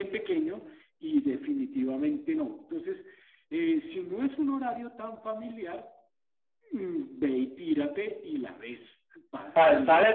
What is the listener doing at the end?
taking over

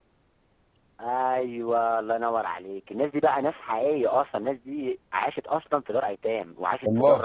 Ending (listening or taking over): listening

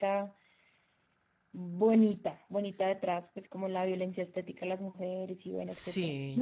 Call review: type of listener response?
taking over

